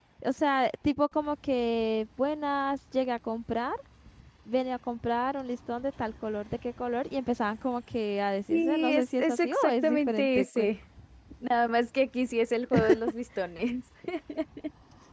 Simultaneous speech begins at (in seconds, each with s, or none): 8.5 s